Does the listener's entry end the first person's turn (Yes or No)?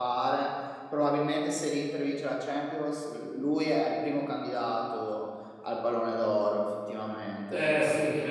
Yes